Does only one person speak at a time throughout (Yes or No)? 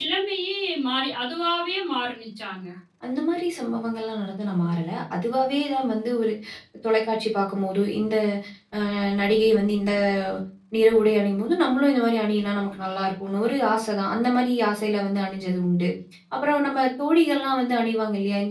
Yes